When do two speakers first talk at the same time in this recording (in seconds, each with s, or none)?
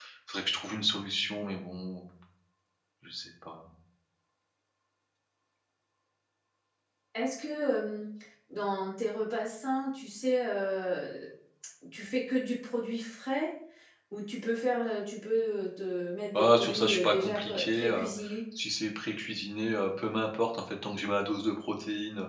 16.3 s